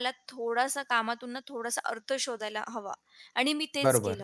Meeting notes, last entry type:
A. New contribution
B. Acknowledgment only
A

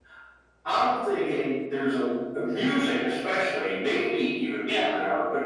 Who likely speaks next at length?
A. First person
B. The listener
A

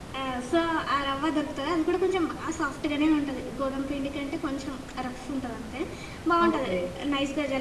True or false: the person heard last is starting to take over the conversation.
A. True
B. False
B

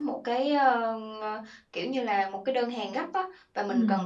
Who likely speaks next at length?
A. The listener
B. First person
B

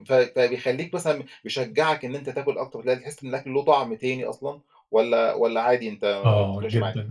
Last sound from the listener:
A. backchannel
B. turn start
B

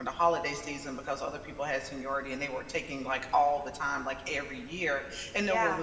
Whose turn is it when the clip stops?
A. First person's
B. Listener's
A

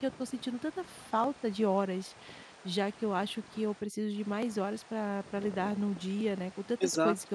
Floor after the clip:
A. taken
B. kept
B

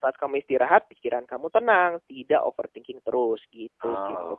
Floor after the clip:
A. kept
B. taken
B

